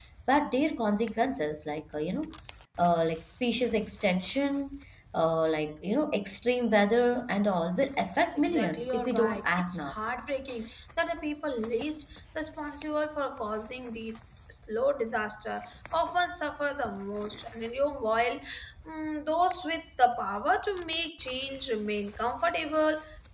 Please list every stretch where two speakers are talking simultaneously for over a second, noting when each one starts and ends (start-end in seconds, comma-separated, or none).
8.3-9.9